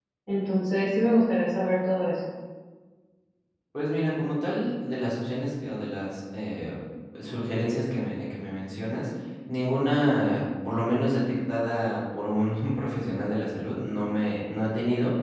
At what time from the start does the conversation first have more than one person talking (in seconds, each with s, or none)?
none